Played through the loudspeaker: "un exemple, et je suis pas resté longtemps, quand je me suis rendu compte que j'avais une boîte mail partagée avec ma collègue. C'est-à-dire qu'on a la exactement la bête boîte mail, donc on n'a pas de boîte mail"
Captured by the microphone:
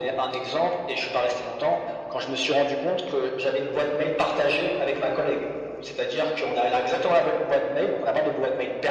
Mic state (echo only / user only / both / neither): echo only